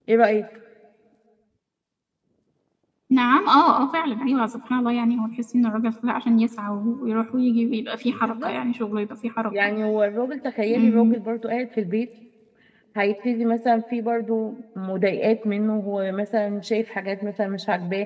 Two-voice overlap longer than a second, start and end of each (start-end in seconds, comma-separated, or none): none